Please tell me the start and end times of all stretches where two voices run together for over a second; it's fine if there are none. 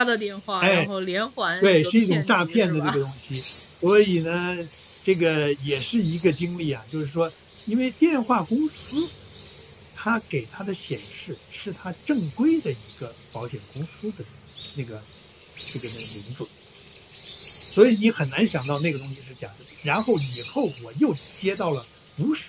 1.6-3.0

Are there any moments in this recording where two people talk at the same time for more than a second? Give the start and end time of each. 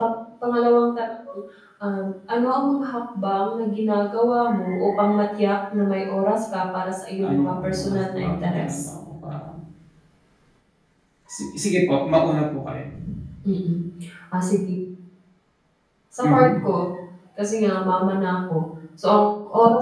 7.2-8.9

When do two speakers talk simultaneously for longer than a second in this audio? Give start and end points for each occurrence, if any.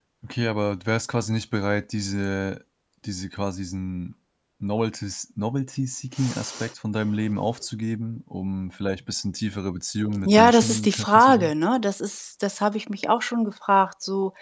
10.2-11.5

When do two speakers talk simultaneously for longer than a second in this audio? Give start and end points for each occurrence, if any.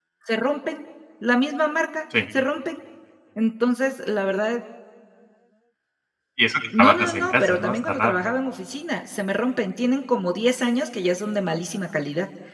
6.8-8.2

